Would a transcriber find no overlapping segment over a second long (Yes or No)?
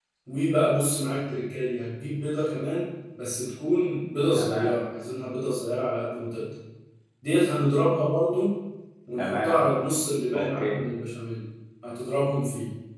Yes